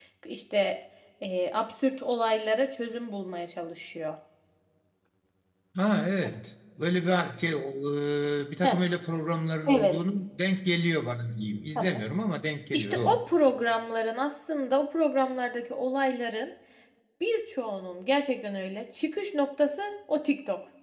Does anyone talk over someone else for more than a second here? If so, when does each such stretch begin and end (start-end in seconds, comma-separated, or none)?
none